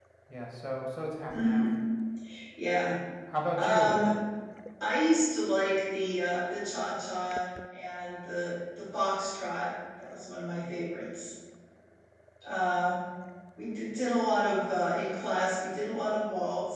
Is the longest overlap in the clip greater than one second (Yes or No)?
No